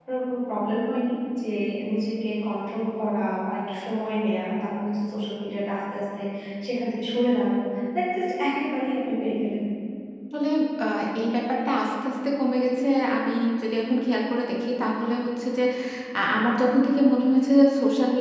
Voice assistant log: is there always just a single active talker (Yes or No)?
Yes